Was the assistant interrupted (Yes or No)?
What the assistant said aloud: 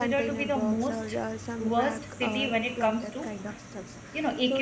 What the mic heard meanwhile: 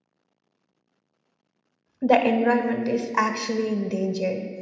Yes